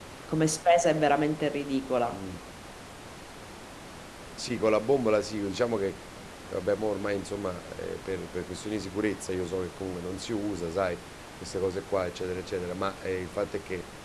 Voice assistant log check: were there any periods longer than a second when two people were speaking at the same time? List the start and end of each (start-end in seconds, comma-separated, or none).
none